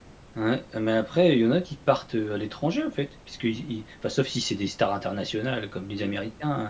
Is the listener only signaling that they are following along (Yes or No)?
Yes